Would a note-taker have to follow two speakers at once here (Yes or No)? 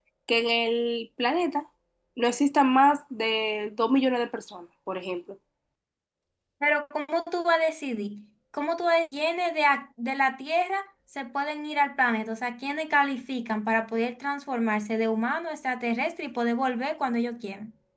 No